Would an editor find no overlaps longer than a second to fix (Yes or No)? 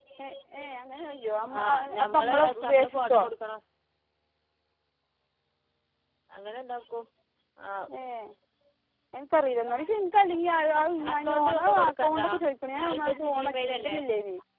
No